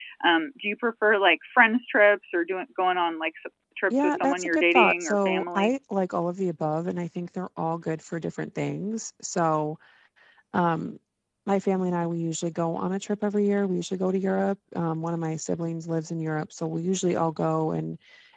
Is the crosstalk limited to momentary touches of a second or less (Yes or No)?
No